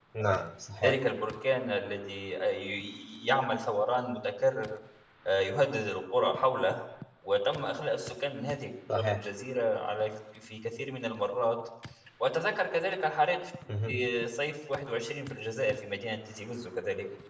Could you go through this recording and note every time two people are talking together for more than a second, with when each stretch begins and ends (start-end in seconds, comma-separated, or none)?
none